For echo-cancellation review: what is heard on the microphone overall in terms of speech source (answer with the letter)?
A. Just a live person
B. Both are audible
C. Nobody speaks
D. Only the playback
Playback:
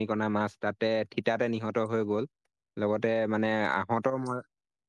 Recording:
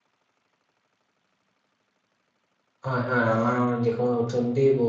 A